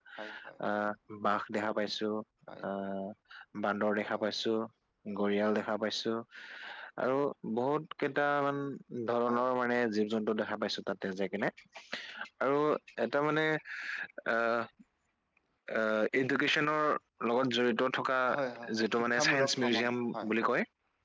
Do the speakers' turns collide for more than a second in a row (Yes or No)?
Yes